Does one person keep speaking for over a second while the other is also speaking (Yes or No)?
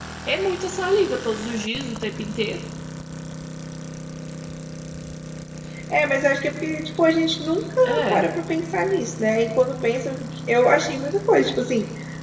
No